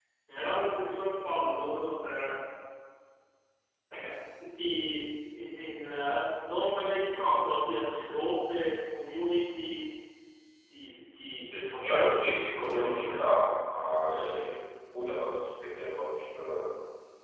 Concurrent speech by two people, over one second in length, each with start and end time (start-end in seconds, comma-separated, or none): 11.5-13.2